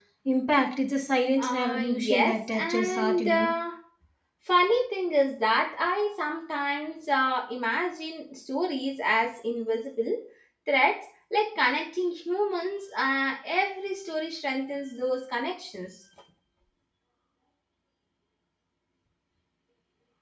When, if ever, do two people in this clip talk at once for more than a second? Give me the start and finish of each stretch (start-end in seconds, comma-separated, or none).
1.4-3.5